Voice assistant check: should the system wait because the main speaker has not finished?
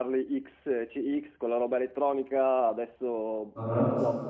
Yes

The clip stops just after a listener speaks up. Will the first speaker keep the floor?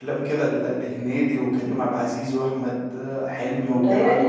No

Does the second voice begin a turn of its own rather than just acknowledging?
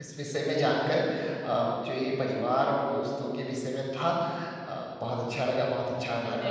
No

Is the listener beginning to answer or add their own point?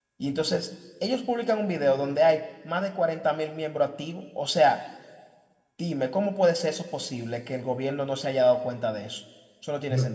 Yes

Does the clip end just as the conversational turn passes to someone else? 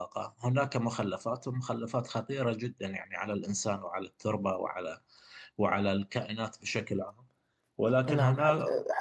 Yes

